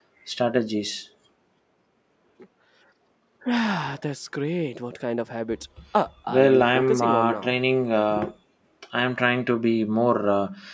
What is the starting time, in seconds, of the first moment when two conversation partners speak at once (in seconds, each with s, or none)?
6.3 s